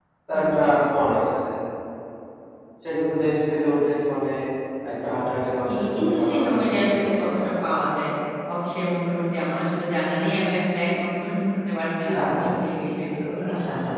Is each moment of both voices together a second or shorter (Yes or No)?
No